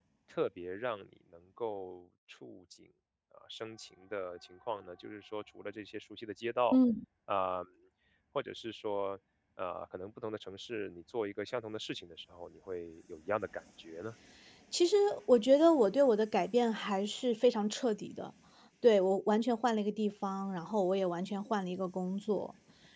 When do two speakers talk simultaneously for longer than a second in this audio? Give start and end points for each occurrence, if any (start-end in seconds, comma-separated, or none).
none